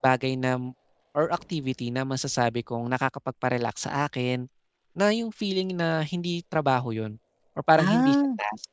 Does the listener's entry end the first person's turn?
No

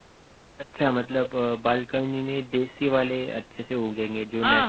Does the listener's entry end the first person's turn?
Yes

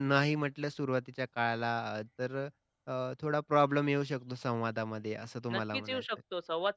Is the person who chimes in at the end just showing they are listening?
No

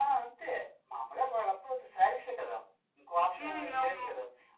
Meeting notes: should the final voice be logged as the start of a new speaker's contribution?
No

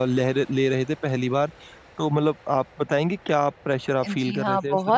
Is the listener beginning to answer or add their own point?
Yes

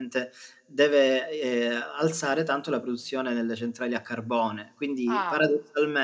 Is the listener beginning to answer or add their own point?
No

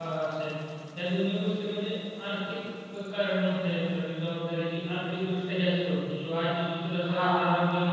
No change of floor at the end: Yes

